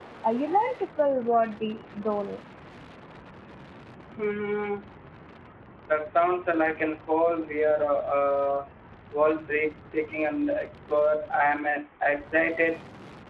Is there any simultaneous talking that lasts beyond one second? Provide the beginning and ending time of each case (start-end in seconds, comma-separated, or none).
none